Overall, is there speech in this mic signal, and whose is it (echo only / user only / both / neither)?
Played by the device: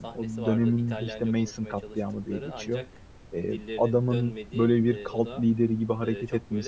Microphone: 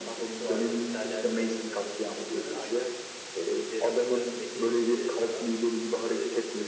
echo only